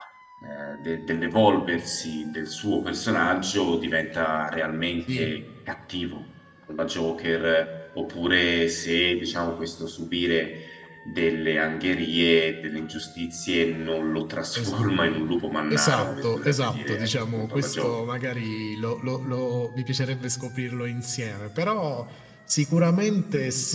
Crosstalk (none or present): present